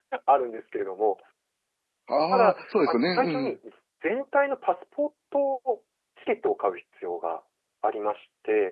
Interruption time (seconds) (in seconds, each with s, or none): 2.3 s